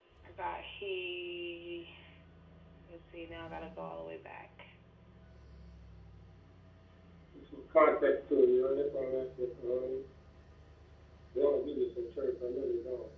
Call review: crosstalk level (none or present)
none